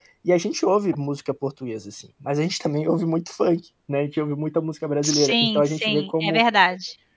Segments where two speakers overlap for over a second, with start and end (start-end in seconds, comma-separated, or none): 5.0-6.4